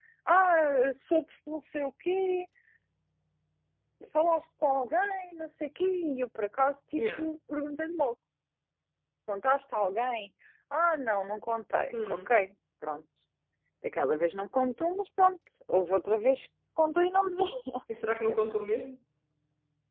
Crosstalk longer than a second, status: none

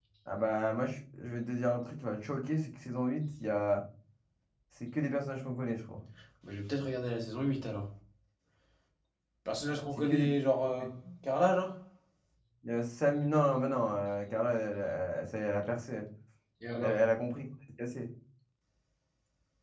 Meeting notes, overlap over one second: none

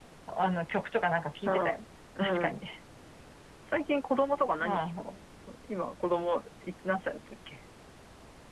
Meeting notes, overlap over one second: none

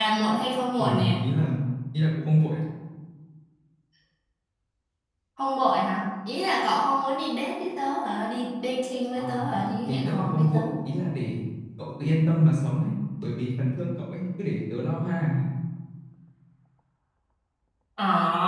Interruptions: present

